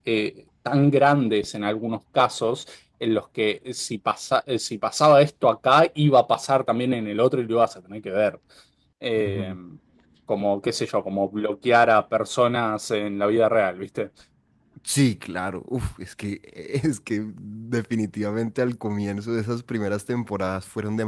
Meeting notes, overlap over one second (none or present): none